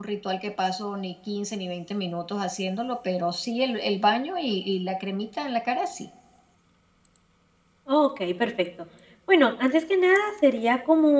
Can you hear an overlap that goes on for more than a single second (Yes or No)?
No